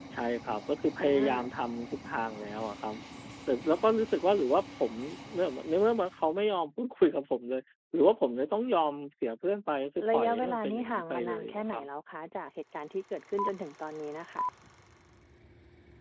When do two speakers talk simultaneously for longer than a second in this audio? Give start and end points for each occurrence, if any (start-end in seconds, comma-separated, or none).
10.1-11.9